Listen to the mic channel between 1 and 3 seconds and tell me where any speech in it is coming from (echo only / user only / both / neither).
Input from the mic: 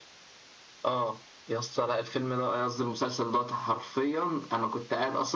echo only